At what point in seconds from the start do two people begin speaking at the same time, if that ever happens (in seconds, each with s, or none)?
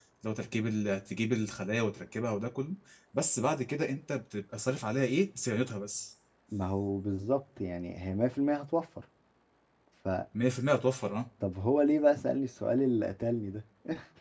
none